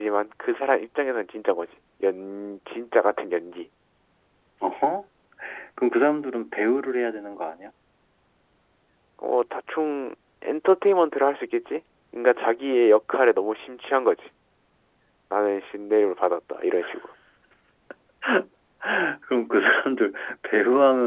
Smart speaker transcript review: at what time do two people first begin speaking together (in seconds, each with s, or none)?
none